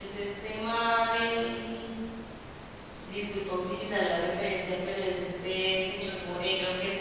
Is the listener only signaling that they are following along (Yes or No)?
Yes